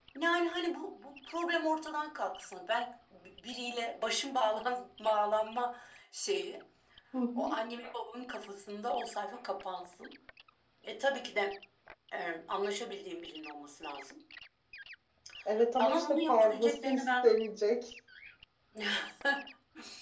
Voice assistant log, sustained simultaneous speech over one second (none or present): present